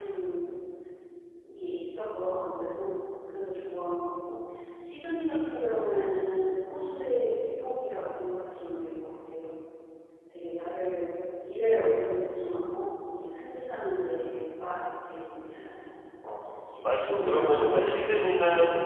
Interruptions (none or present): present